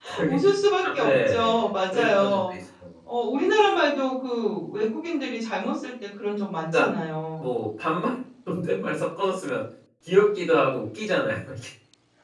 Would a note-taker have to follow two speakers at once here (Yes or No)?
Yes